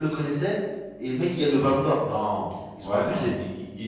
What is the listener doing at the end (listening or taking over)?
taking over